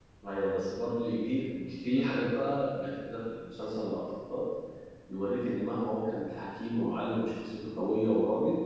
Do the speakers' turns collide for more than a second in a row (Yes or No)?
No